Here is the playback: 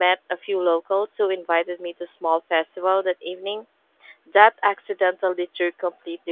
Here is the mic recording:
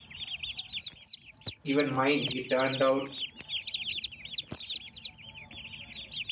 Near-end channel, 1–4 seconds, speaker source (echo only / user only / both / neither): user only